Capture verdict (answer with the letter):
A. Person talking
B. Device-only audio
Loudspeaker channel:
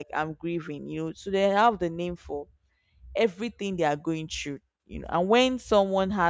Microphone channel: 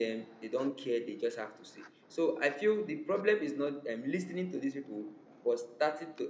A